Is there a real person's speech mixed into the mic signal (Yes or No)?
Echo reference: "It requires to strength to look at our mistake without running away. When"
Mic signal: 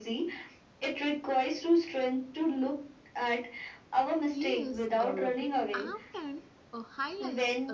Yes